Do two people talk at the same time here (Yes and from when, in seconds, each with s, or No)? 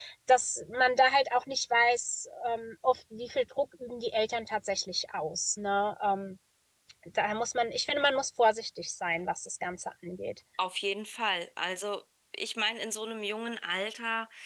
No